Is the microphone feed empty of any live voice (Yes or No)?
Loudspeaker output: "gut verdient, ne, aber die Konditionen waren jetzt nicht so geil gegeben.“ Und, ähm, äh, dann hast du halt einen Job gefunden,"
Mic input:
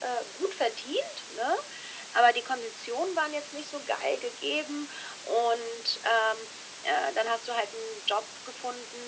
Yes